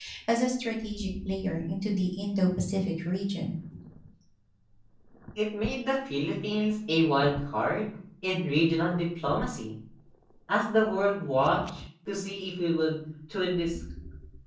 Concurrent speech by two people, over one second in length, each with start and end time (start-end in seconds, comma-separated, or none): none